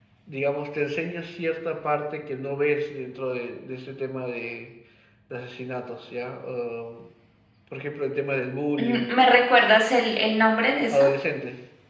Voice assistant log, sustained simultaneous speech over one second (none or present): none